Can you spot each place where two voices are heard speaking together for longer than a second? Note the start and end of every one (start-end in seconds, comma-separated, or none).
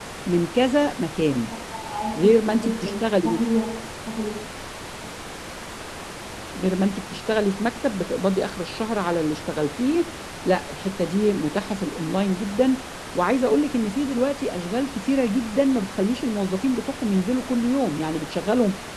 2.2-3.4